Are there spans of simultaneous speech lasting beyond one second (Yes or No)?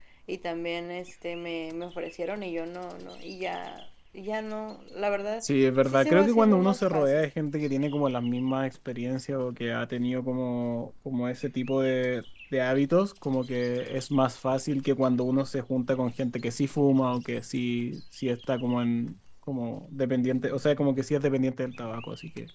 Yes